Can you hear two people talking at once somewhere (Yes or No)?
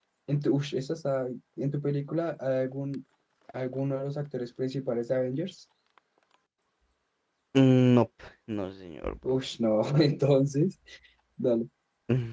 No